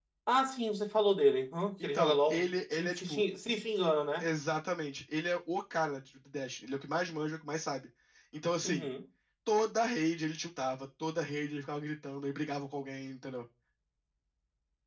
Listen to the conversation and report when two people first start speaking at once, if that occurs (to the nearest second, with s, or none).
2 s